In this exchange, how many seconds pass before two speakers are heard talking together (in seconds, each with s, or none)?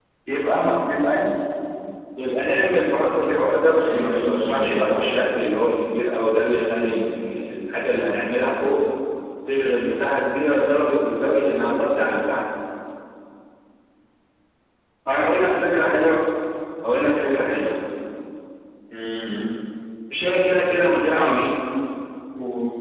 3.7 s